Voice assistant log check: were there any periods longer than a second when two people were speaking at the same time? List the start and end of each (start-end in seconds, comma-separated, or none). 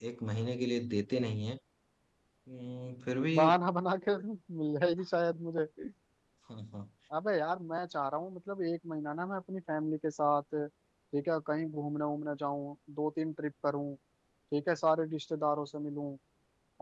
none